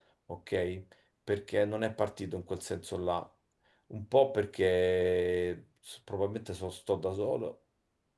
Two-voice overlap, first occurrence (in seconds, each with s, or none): none